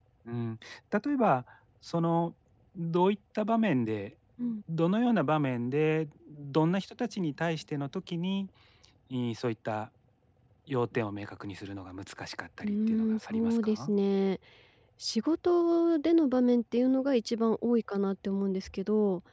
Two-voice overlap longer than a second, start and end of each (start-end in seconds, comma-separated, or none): 12.6-13.9